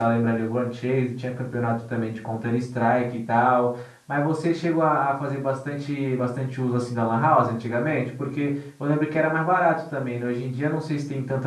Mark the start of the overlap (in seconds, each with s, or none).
none